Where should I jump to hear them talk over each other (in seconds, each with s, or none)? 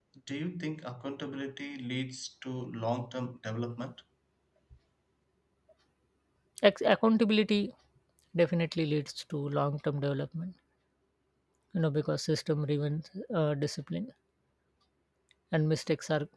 none